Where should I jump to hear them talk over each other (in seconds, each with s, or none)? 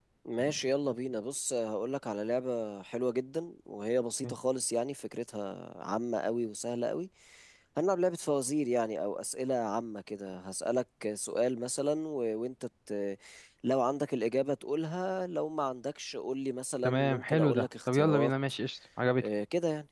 16.8 s